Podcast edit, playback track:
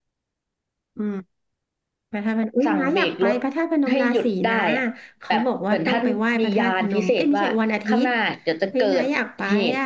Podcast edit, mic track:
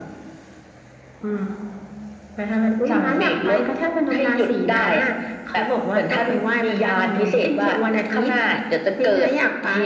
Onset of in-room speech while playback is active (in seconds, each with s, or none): none